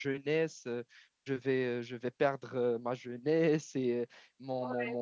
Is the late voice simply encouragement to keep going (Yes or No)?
Yes